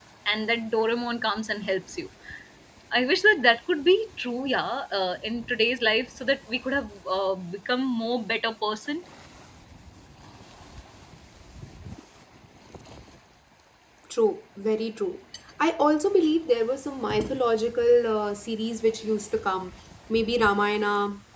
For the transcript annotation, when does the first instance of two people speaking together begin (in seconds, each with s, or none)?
none